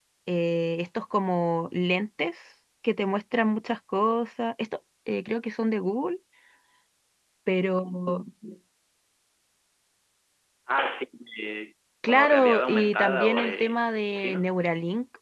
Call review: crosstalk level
present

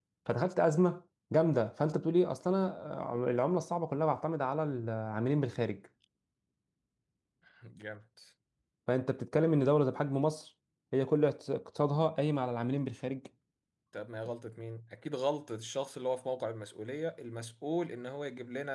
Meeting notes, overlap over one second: none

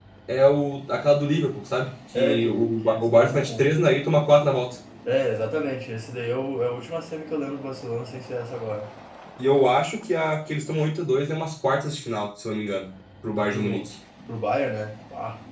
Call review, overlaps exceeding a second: present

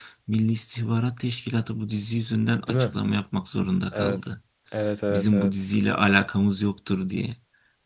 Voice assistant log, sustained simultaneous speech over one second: none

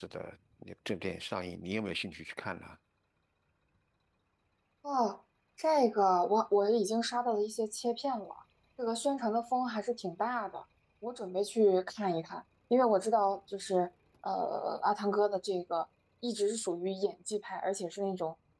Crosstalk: none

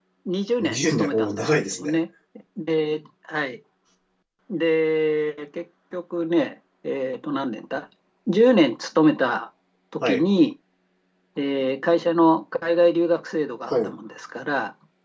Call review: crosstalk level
present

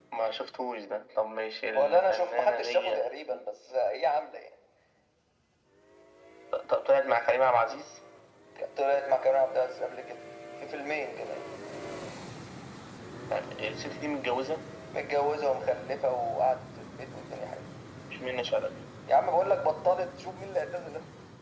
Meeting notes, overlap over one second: present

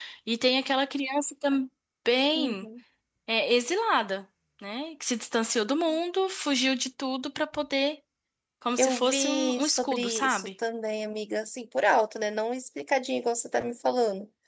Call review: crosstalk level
present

